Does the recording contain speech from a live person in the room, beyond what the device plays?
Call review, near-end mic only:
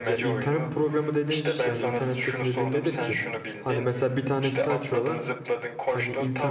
Yes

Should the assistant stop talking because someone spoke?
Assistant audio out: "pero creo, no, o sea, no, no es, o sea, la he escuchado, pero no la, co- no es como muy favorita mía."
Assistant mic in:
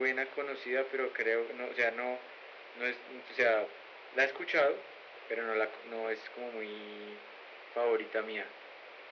No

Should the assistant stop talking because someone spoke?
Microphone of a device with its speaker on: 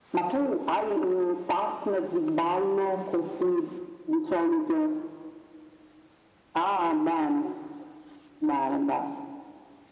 No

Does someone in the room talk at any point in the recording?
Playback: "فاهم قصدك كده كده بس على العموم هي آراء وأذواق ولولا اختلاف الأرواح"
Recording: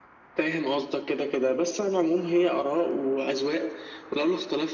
No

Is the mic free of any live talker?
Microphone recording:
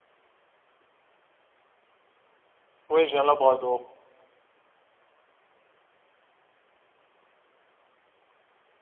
No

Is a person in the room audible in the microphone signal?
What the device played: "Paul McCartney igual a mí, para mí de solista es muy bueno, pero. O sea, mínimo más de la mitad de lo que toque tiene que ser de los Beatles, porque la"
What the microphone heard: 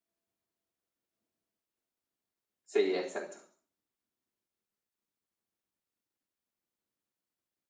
Yes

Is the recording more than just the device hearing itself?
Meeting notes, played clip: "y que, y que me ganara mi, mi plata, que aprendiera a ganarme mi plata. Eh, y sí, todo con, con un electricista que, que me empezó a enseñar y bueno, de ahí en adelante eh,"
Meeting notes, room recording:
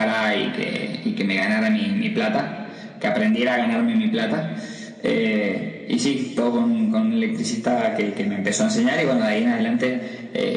No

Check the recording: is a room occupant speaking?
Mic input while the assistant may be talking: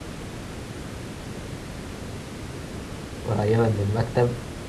Yes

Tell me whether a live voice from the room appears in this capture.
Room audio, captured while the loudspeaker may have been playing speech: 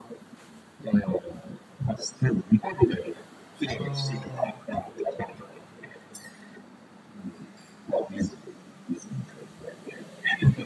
Yes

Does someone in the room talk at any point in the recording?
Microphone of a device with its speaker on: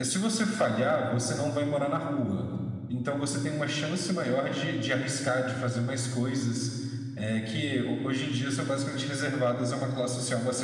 Yes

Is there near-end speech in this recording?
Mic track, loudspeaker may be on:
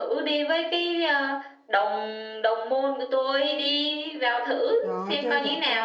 Yes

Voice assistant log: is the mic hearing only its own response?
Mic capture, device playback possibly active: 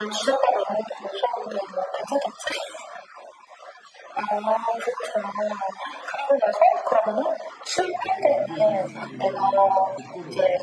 No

